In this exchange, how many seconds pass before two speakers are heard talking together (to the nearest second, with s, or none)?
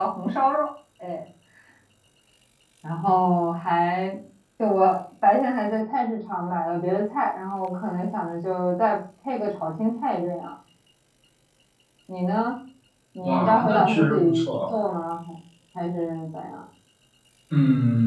13 s